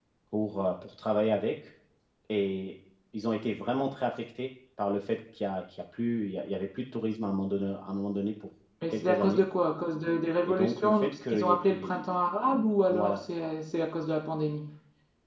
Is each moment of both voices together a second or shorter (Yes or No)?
No